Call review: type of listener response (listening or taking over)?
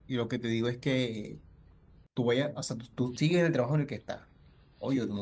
listening